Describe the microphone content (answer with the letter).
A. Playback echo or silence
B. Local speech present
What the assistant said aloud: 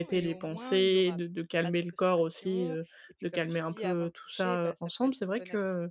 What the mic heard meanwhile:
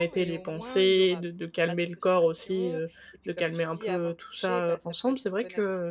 A